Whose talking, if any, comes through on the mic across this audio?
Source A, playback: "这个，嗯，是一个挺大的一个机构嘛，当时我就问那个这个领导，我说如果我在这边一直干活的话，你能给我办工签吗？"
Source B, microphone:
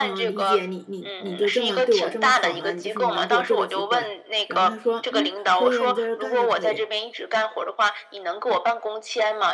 both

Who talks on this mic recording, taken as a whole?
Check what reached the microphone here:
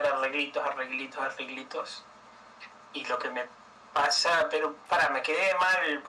echo only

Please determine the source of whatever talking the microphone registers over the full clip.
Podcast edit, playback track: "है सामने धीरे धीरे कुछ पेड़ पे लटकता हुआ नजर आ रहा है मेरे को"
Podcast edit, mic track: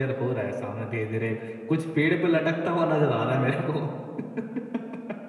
echo only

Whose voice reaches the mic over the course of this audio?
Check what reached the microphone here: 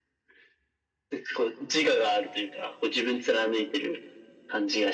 echo only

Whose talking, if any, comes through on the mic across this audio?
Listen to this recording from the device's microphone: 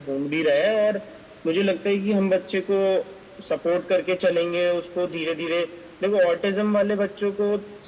echo only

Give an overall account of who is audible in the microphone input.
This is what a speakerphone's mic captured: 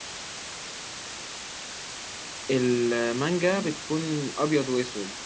user only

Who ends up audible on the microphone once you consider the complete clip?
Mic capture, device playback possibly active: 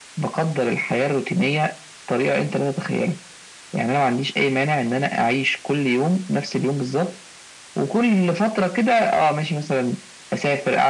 echo only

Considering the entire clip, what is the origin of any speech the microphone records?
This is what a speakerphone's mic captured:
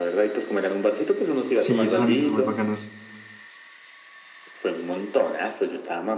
both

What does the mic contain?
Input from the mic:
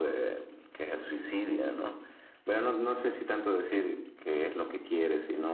echo only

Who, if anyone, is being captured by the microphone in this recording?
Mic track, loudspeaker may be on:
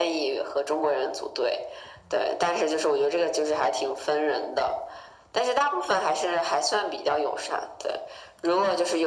echo only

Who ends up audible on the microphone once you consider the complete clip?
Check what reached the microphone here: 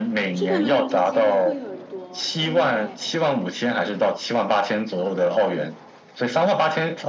both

